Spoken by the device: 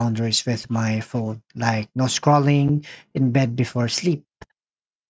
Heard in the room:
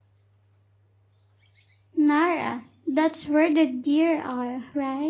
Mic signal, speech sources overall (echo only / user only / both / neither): user only